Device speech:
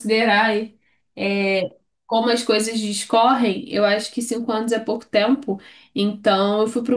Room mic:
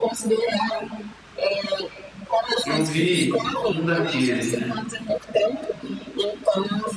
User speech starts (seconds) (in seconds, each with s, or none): 2.6 s